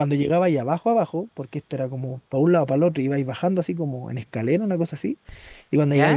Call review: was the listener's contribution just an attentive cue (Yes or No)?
Yes